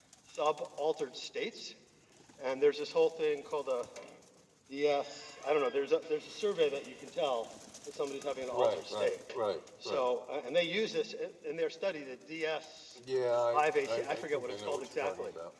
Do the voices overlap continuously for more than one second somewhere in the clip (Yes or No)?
Yes